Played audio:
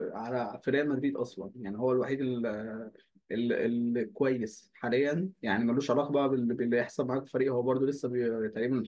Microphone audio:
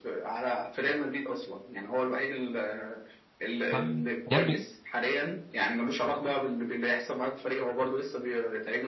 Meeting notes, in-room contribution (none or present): present